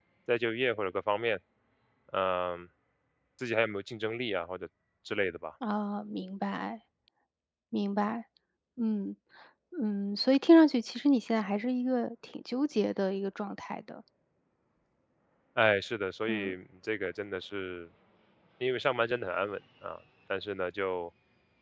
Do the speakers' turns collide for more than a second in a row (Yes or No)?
No